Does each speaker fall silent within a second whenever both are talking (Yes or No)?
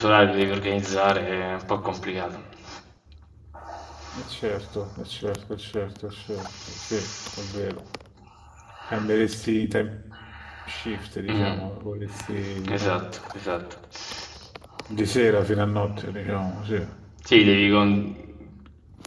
Yes